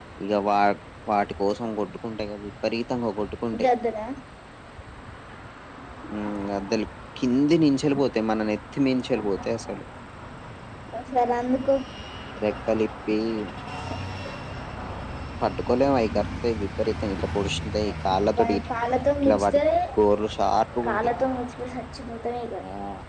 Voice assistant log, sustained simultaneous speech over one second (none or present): none